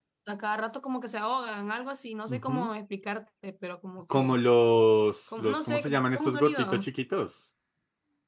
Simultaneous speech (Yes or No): Yes